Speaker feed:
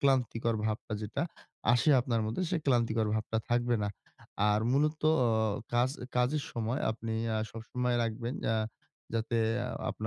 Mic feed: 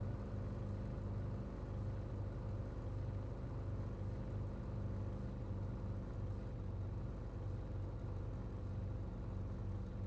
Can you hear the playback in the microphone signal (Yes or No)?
No